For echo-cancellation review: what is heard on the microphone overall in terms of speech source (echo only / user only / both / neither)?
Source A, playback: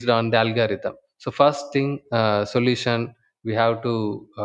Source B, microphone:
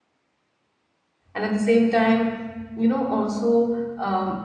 user only